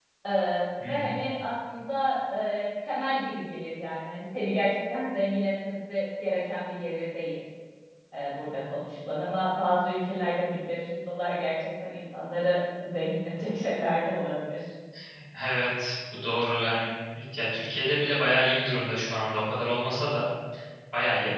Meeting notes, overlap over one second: none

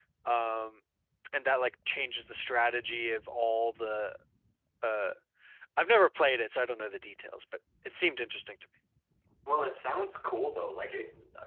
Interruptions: none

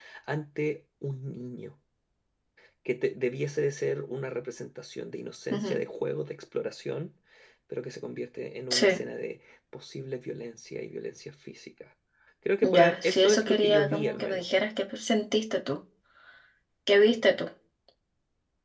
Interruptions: present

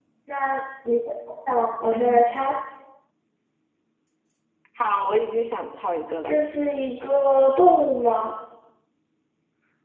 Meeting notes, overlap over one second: none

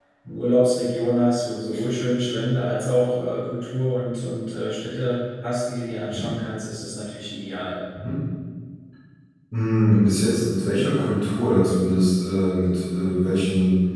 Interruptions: none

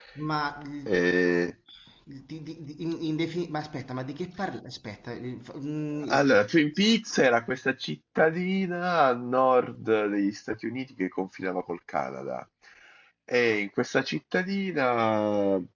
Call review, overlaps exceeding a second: none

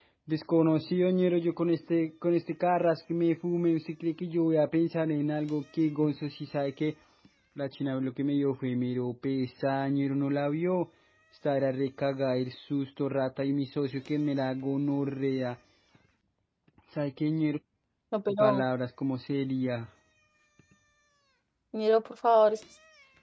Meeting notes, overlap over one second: none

